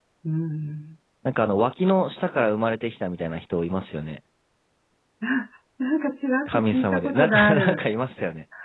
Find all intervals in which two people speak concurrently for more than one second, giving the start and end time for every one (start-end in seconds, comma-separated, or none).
6.5-7.8